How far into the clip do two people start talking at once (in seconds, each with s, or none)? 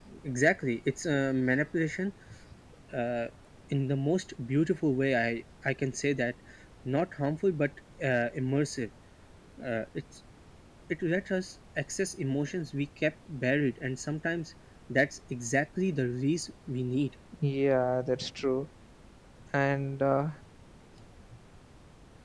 none